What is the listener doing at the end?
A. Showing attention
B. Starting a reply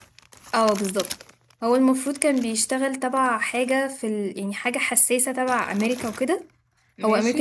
A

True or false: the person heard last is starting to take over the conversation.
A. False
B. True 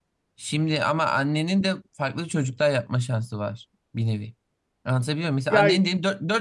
A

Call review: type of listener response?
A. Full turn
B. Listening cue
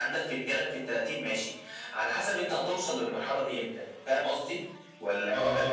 A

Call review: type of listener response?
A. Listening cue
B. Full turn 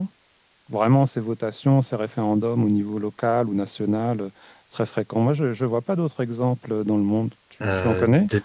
B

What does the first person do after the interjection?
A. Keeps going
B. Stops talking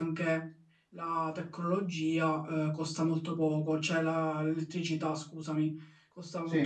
A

